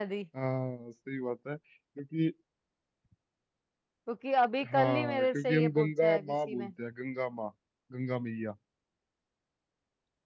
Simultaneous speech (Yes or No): Yes